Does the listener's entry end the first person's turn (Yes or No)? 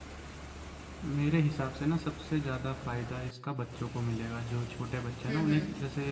No